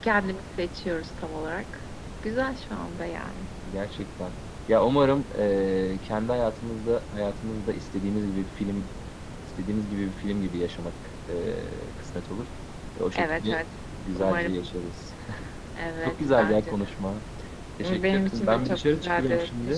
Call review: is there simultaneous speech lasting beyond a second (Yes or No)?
Yes